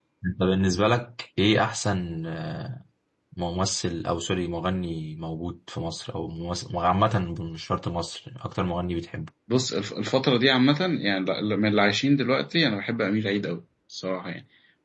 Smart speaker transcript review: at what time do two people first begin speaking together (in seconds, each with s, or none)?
none